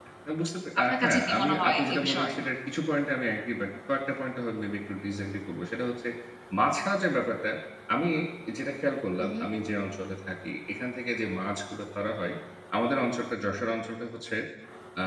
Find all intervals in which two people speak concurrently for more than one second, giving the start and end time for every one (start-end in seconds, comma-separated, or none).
0.8-2.3